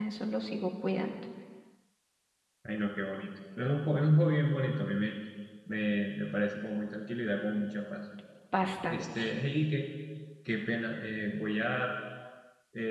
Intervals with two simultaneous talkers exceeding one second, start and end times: none

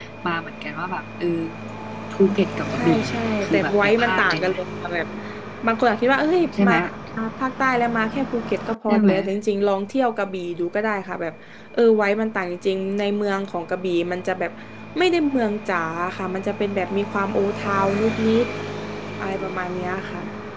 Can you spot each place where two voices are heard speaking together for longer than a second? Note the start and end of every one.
2.7-4.5

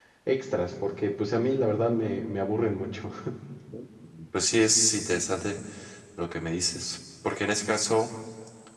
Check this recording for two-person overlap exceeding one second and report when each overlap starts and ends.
none

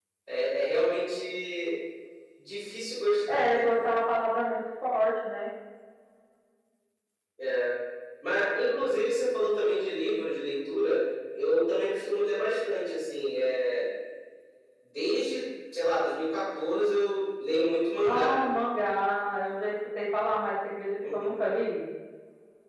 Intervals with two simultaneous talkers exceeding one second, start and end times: none

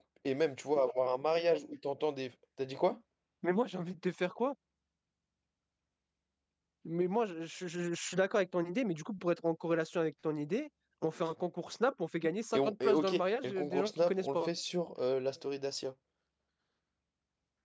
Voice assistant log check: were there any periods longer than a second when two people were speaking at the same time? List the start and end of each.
12.5-14.5

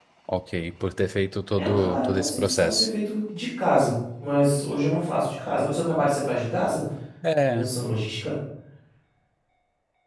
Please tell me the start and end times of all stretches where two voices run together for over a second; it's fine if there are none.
1.6-2.9

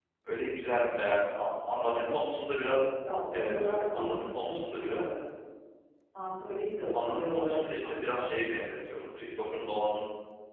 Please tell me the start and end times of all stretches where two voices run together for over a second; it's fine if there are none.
3.3-5.1, 6.9-8.3

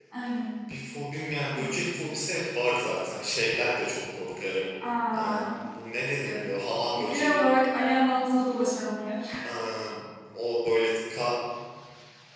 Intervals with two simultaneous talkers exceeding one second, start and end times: none

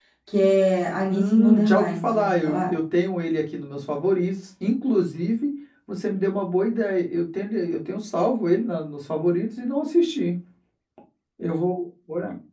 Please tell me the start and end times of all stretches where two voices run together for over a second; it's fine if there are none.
1.1-2.7

